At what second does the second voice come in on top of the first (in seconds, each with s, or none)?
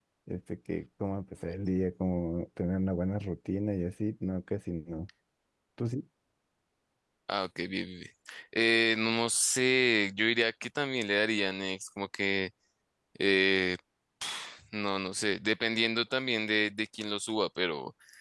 none